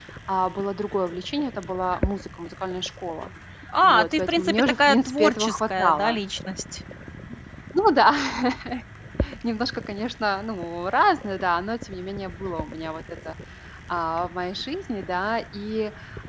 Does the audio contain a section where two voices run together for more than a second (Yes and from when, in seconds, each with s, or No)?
Yes, from 3.8 s